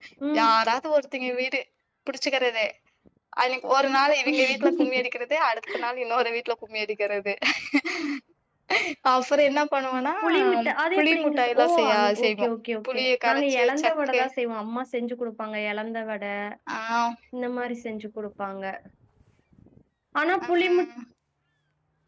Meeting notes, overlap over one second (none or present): present